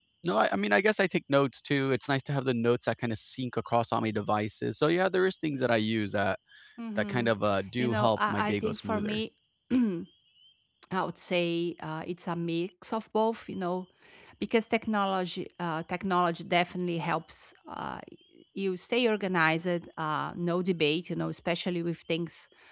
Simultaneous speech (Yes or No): Yes